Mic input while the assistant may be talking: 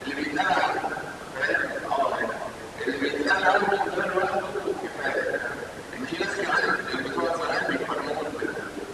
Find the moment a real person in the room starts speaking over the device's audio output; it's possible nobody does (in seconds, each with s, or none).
none